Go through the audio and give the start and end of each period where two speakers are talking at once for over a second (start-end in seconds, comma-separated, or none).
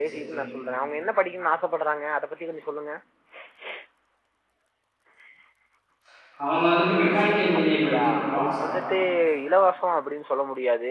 7.7-8.9